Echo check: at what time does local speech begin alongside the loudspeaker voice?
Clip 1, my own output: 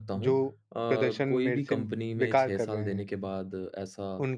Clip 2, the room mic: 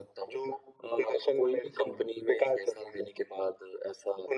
none

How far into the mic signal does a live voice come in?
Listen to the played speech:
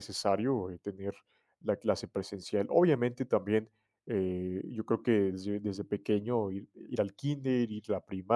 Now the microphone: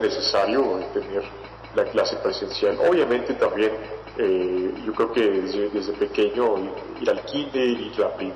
none

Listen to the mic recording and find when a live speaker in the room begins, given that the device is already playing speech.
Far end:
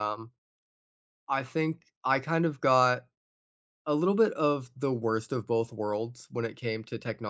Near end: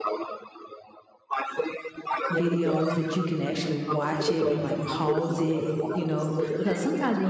2.3 s

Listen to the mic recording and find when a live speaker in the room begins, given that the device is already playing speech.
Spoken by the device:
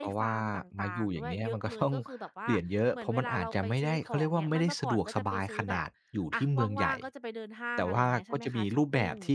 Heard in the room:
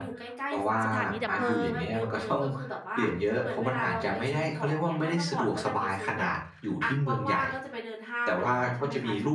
0.8 s

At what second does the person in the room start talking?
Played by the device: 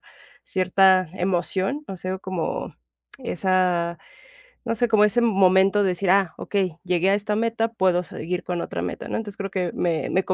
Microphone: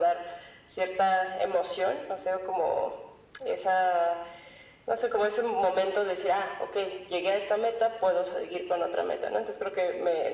none

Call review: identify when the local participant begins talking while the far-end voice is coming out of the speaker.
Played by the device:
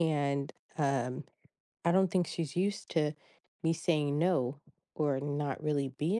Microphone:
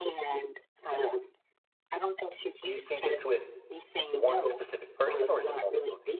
2.6 s

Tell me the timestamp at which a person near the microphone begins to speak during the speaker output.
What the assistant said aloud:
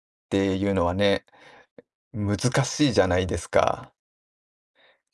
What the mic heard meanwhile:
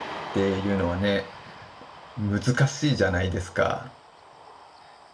none

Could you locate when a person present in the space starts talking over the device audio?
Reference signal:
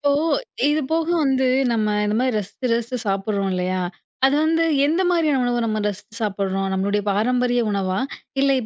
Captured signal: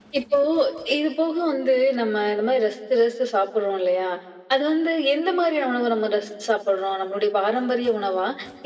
none

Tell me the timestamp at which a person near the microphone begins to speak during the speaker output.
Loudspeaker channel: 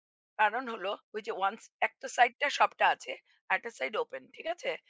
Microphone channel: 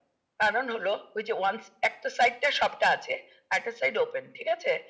none

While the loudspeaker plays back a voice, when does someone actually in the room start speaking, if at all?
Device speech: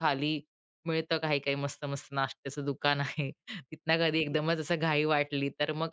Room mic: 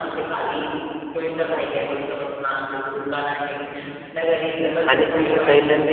4.9 s

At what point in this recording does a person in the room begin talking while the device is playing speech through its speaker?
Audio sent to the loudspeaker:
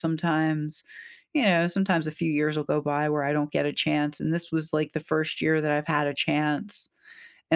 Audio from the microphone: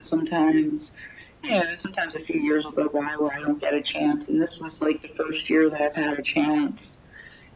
none

